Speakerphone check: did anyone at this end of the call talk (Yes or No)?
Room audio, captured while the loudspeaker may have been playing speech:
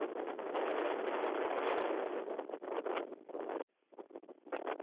No